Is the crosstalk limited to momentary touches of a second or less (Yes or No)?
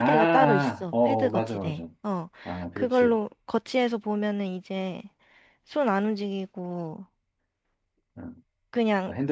No